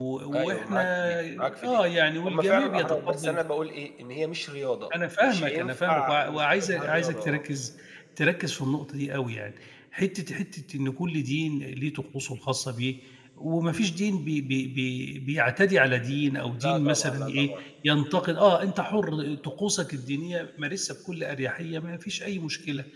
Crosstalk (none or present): present